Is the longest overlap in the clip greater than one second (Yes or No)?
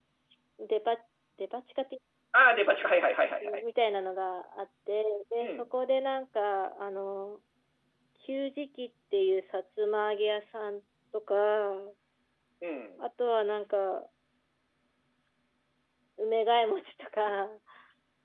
No